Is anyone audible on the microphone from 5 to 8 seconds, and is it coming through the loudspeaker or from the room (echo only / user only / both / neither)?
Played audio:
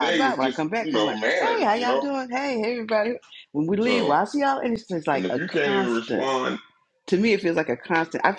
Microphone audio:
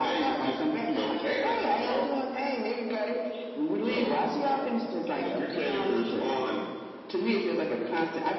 echo only